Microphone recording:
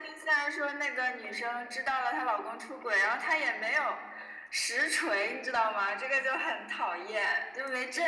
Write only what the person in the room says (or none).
none